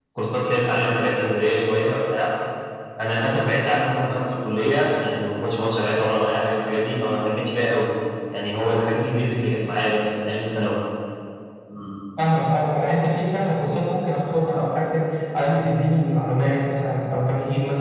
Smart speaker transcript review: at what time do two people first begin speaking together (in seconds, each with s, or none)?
none